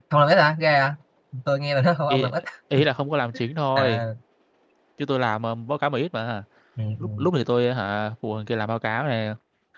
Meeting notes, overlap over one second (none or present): none